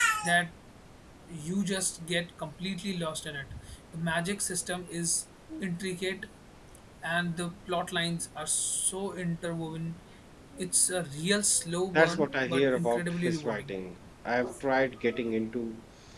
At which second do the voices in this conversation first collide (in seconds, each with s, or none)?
11.9 s